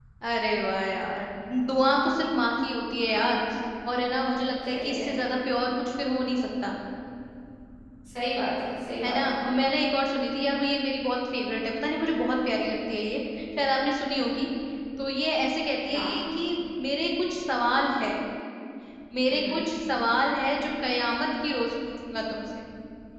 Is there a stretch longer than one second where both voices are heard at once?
No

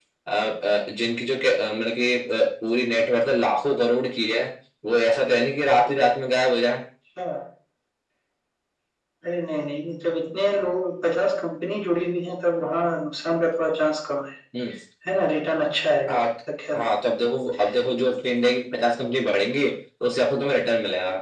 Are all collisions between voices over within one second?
Yes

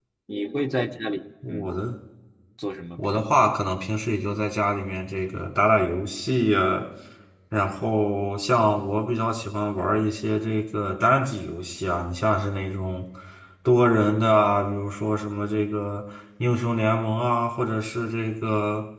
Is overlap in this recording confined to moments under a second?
Yes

